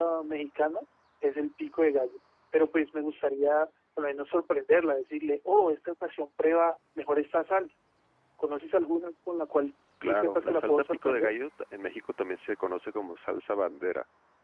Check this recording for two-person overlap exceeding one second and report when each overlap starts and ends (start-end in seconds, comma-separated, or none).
10.1-11.3